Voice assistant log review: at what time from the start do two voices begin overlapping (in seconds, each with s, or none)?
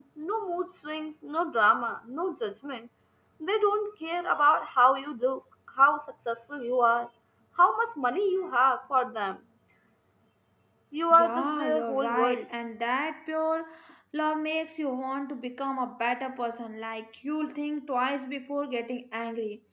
11.1 s